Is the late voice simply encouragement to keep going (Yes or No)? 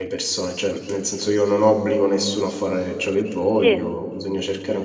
Yes